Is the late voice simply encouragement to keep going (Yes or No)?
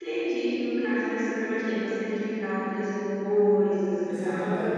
No